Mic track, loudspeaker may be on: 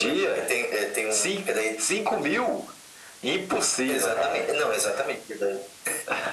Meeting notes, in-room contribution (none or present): none